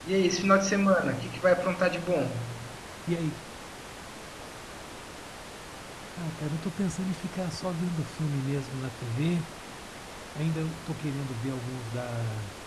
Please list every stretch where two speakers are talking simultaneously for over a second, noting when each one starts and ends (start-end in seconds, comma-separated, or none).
none